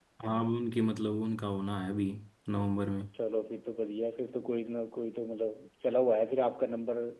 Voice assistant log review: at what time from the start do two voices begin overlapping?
none

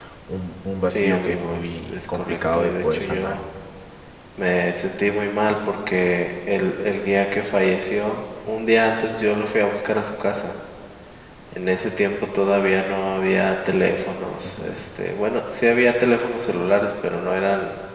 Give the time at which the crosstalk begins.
0.9 s

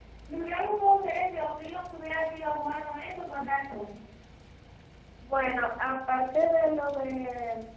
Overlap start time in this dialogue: none

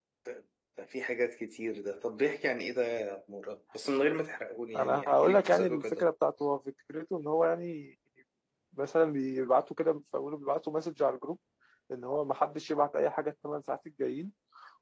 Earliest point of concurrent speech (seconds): 4.7 s

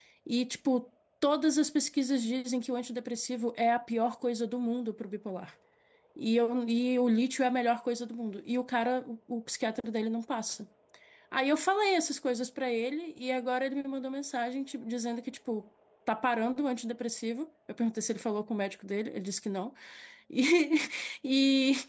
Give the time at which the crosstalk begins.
none

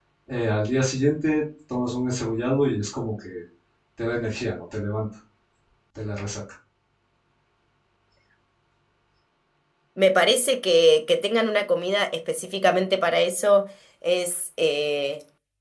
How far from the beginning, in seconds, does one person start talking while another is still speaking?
none

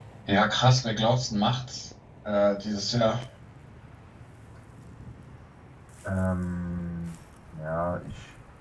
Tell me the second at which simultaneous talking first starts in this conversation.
none

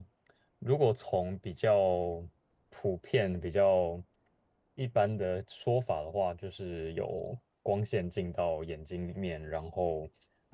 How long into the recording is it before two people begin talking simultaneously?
none

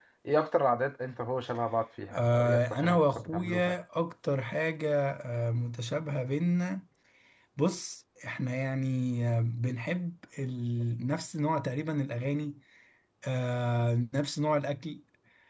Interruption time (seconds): 2.1 s

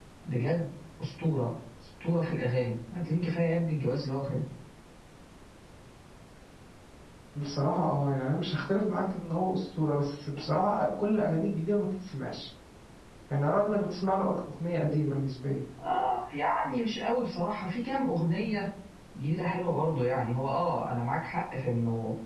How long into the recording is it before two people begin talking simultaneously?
none

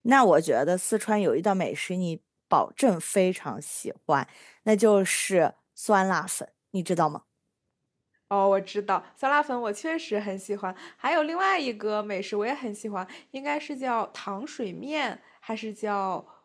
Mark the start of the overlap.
none

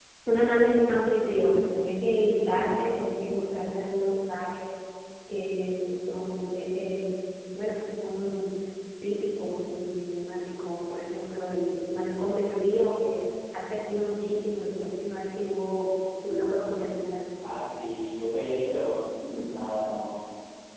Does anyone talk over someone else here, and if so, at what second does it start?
none

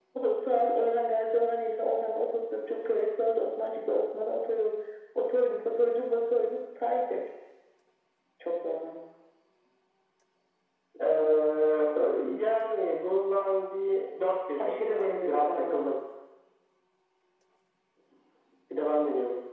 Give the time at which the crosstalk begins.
14.6 s

